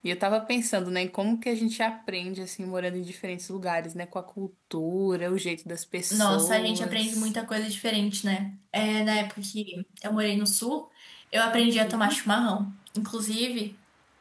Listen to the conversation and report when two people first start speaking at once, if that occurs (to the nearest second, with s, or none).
6 s